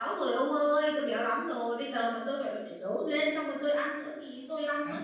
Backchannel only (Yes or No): No